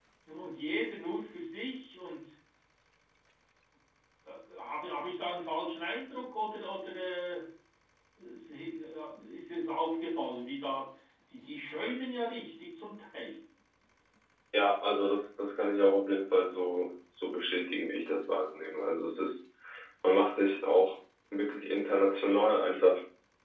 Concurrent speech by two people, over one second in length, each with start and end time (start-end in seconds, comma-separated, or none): none